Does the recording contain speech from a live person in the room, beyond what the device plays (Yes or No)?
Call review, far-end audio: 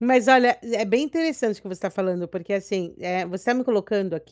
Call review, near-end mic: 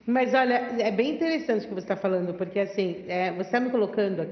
No